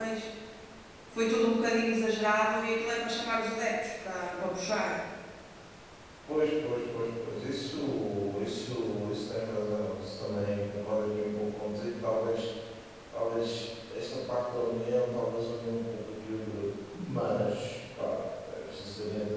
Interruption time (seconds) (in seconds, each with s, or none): none